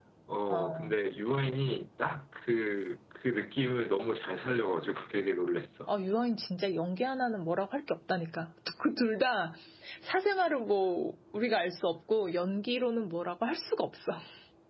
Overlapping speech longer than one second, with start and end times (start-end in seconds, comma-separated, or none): none